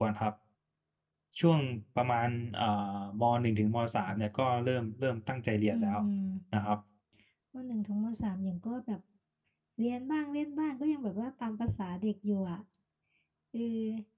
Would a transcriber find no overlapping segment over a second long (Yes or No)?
Yes